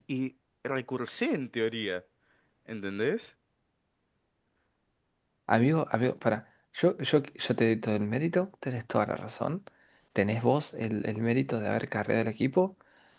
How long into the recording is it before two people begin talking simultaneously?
none

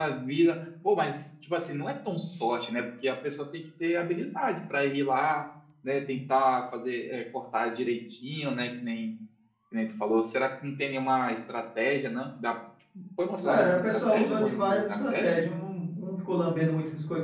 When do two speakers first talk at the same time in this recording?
13.4 s

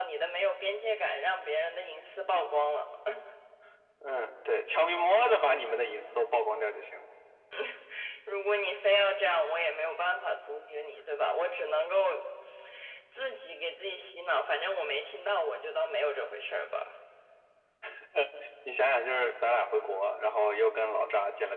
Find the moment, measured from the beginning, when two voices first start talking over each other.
none

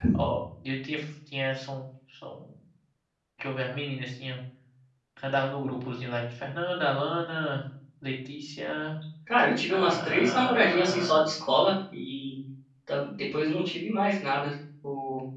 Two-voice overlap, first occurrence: 9.7 s

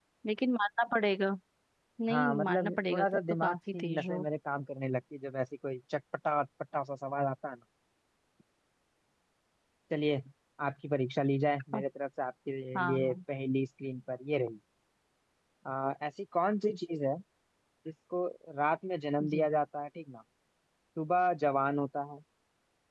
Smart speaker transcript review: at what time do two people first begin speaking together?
2.1 s

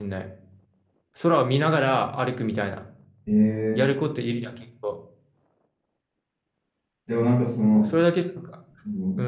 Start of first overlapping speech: none

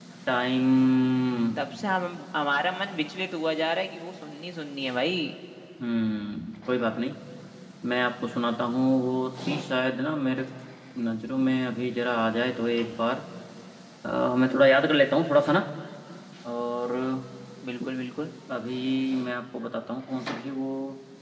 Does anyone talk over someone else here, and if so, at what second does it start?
none

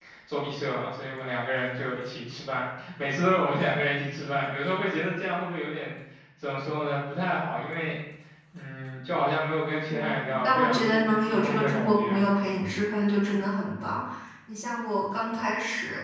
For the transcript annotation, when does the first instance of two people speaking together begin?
9.9 s

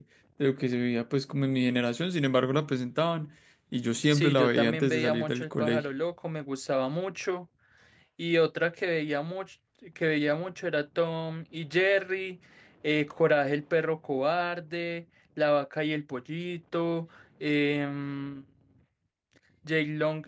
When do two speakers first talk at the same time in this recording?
4.1 s

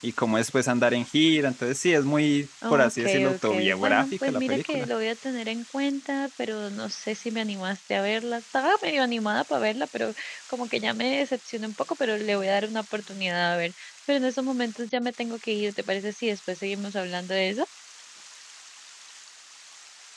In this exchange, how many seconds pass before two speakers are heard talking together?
2.6 s

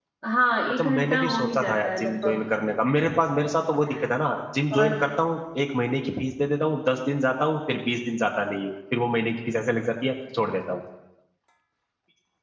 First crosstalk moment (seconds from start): 0.7 s

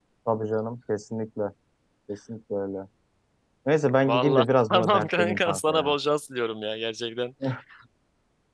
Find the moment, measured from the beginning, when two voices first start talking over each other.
4.1 s

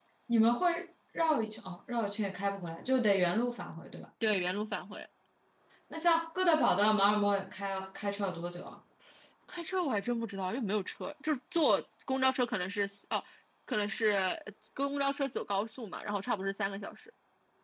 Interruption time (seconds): none

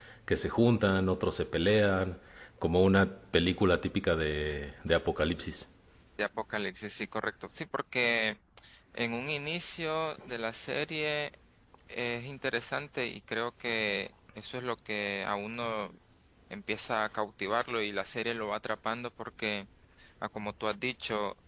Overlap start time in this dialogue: none

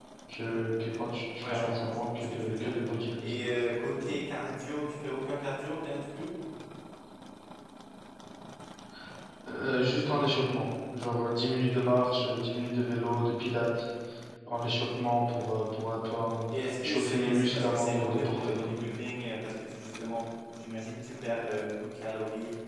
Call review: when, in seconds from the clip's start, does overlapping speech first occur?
1.4 s

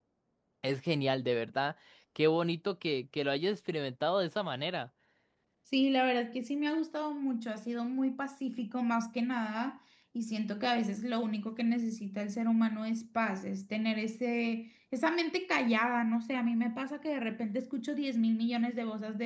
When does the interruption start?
none

